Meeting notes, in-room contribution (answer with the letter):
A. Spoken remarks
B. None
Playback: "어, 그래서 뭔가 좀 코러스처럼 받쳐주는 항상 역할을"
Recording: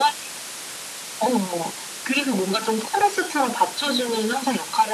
B